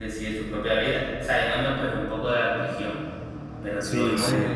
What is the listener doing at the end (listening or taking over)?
listening